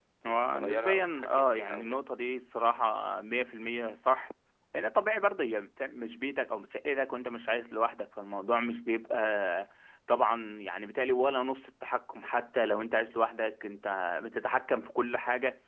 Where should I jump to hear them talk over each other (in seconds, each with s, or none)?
0.5 s